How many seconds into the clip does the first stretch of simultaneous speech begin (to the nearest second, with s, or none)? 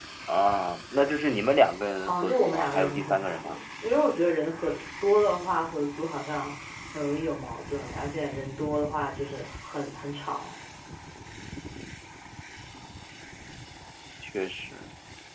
2 s